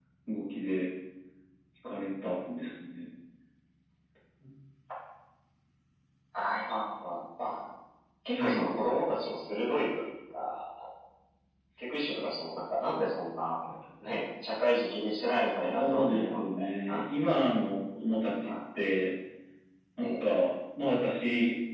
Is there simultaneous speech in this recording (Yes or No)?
Yes